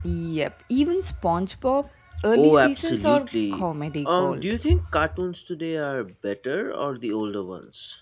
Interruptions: present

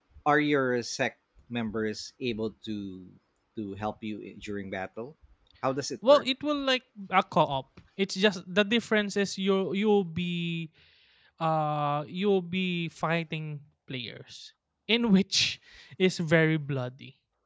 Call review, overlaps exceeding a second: none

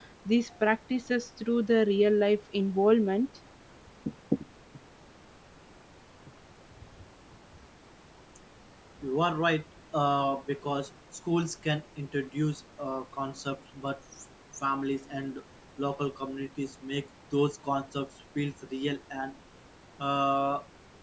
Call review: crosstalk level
none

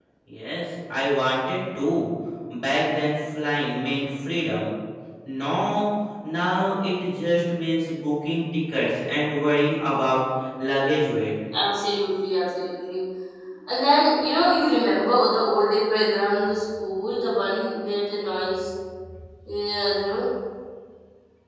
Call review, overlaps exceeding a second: none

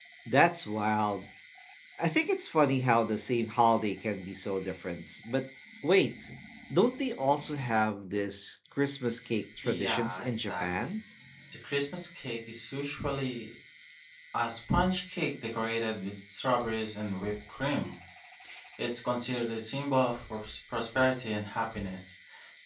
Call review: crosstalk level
present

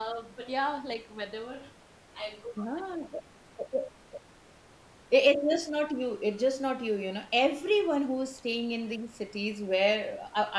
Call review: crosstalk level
none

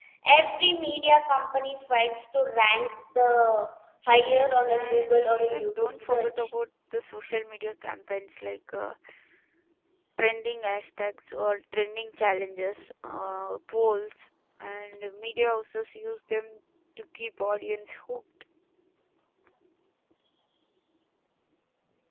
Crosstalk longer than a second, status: present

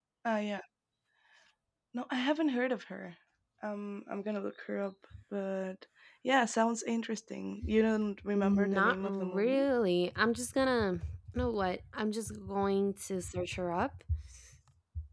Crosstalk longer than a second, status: present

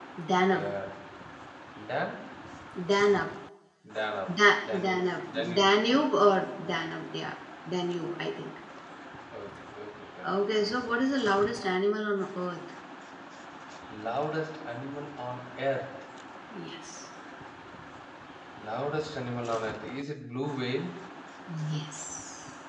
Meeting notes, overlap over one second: present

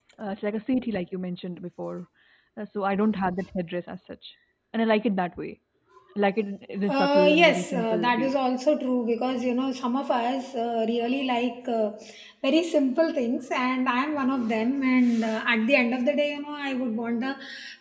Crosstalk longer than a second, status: present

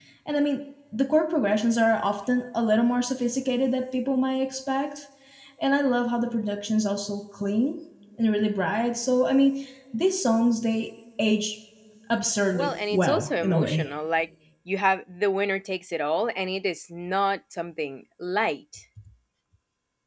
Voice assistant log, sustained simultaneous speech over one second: present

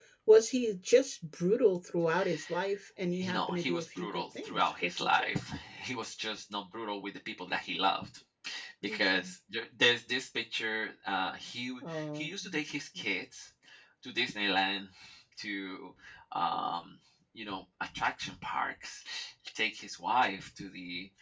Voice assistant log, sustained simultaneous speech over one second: present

